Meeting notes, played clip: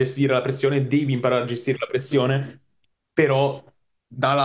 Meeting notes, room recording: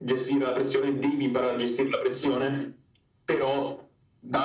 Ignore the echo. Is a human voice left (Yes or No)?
No